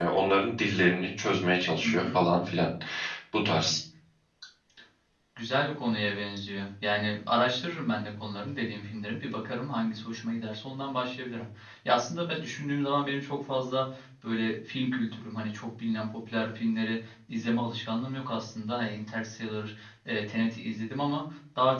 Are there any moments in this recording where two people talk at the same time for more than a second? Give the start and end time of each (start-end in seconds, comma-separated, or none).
none